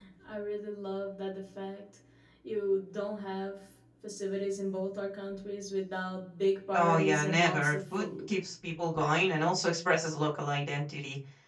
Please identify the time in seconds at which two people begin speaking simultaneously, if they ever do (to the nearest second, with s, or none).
7 s